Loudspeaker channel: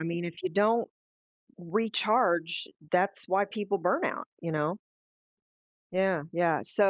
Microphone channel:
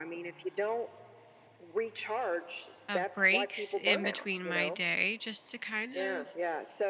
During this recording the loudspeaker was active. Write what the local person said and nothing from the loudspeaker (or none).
of breaks in between my day just to kind of